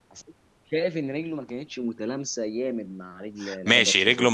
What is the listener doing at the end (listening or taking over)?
taking over